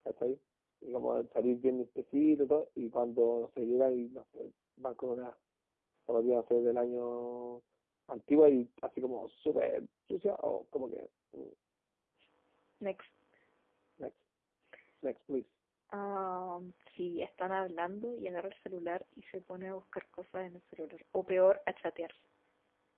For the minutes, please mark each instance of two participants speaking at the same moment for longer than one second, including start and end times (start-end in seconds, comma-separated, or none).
none